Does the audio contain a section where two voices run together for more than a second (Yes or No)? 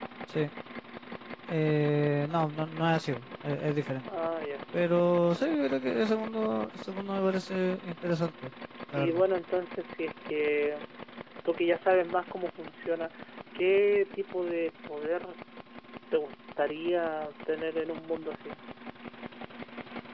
No